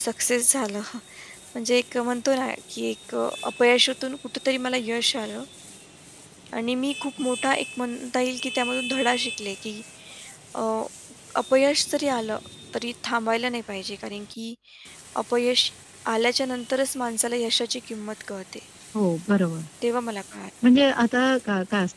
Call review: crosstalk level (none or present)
none